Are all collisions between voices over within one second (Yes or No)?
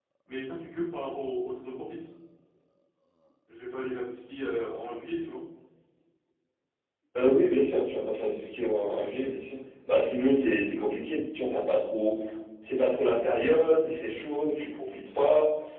Yes